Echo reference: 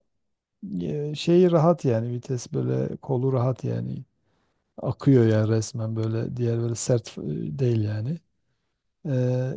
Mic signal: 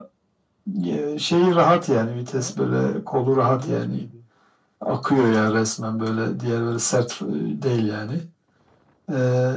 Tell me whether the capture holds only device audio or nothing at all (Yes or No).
No